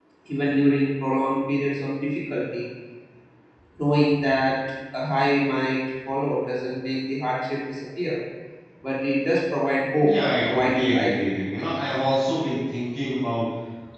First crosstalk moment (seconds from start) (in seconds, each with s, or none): 10.0 s